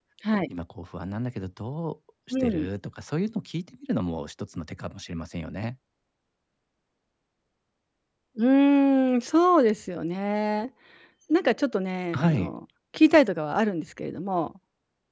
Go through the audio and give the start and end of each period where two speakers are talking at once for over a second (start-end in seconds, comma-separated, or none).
none